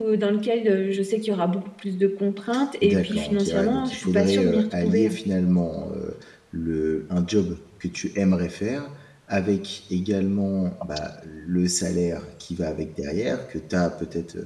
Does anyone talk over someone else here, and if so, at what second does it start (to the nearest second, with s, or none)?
3 s